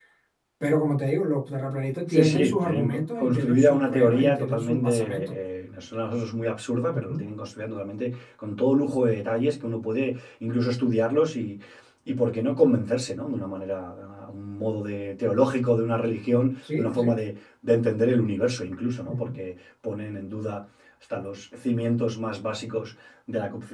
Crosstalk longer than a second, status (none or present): present